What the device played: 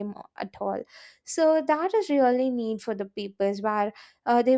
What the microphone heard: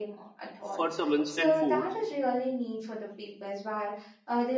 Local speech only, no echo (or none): for some instant foods,